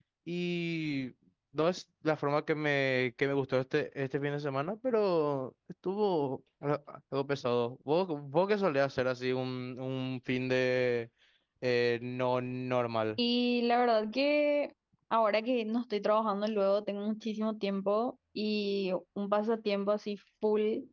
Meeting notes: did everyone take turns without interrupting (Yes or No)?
Yes